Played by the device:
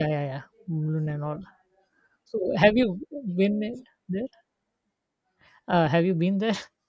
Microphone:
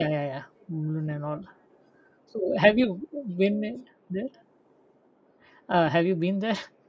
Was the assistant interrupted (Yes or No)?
No